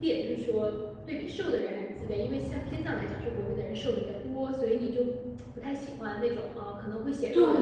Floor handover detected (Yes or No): Yes